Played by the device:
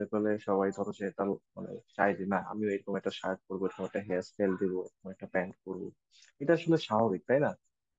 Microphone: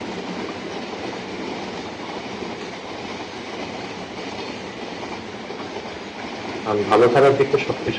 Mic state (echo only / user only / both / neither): user only